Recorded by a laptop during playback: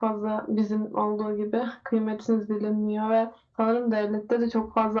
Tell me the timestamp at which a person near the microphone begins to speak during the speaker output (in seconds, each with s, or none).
none